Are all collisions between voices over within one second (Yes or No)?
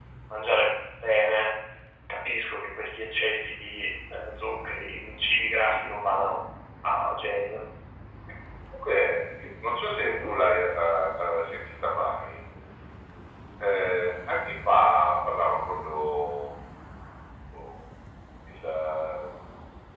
Yes